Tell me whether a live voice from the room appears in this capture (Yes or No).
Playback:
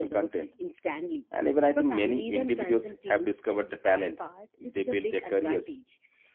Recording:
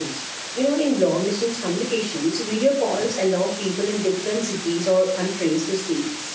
Yes